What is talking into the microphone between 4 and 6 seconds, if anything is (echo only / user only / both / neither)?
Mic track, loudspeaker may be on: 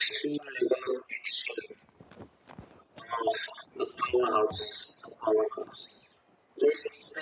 echo only